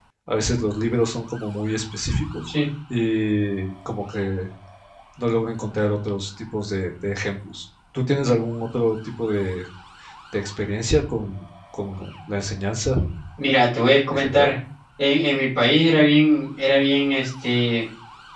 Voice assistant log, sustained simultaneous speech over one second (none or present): none